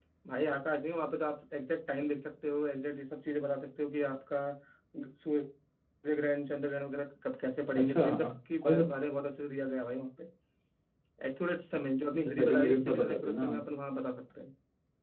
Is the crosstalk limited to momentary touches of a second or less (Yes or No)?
No